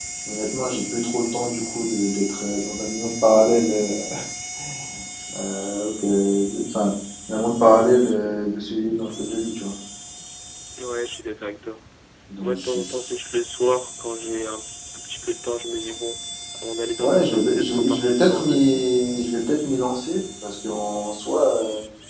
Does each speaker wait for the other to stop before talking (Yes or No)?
No